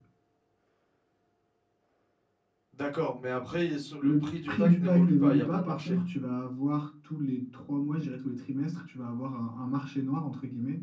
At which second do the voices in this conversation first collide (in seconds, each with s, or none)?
4.0 s